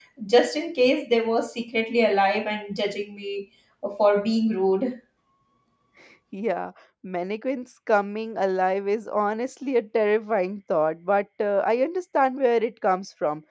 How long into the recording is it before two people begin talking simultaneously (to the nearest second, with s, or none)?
none